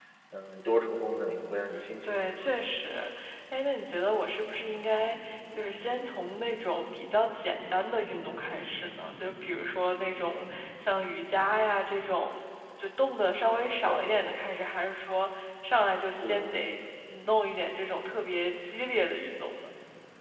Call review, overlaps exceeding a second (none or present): none